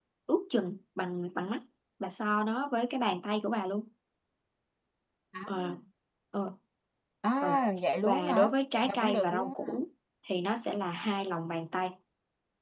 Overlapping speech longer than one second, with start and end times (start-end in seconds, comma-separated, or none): 8.0-9.7